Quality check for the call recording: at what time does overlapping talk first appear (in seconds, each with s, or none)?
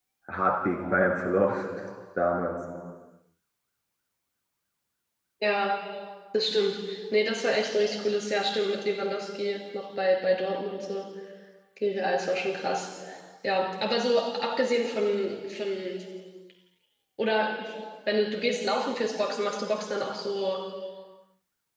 none